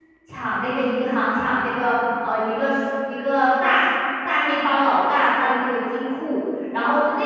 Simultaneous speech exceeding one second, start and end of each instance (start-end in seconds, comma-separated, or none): none